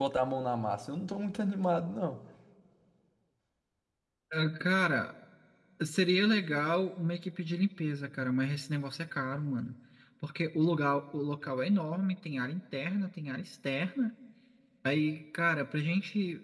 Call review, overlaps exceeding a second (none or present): none